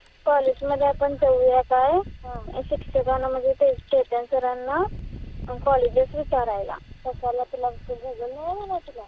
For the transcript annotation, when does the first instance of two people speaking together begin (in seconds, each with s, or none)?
none